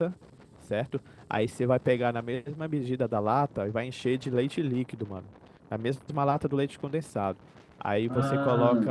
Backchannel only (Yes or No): Yes